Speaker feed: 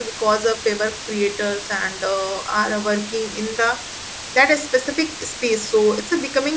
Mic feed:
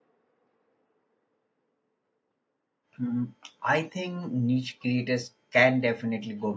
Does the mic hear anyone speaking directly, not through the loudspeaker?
Yes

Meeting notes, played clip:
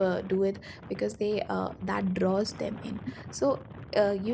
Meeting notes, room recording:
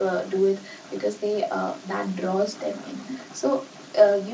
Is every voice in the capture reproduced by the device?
Yes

